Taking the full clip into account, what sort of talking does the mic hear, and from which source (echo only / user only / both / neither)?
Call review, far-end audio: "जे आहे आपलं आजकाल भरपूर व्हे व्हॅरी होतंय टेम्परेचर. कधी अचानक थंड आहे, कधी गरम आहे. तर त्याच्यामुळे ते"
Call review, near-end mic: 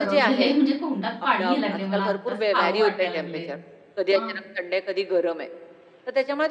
both